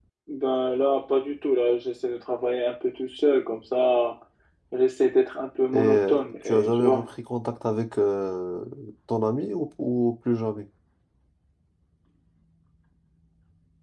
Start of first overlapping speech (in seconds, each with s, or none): 5.7 s